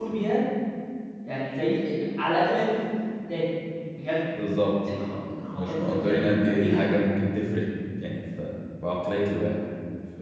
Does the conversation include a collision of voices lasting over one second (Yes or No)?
Yes